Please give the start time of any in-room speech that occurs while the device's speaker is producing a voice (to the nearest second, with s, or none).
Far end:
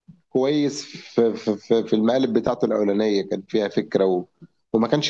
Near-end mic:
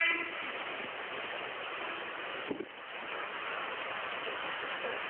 none